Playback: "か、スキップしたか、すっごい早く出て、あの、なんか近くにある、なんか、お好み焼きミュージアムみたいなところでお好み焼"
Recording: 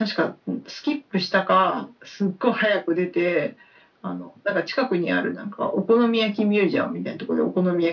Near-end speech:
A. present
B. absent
B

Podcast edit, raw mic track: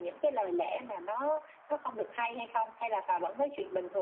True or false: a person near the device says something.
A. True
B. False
B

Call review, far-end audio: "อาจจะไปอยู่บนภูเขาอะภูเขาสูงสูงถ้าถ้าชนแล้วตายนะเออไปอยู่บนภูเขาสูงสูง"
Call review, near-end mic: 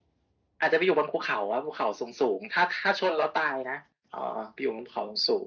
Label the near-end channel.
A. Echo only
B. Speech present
A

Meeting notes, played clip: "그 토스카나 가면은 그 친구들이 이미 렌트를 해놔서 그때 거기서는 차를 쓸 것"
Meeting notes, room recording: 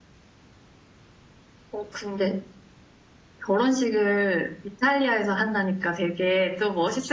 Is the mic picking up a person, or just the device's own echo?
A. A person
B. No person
A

